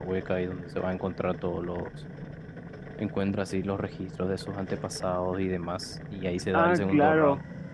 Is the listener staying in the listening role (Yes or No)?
No